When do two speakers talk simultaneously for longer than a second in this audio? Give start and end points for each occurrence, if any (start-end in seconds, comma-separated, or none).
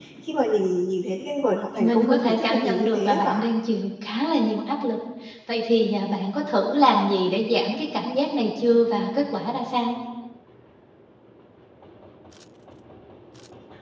1.8-3.4